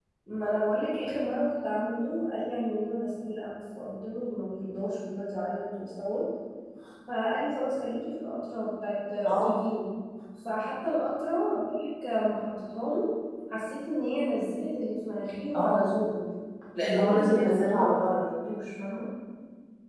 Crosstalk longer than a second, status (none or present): present